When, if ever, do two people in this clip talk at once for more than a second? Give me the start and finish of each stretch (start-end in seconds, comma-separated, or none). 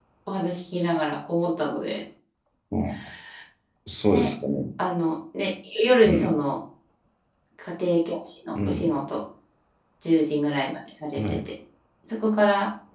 none